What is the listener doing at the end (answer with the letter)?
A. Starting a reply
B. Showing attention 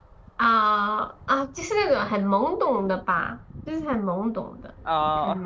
B